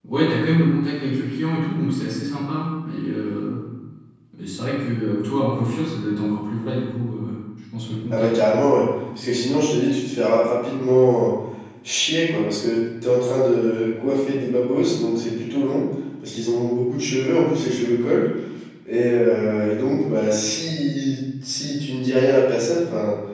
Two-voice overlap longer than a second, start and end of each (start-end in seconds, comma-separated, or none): none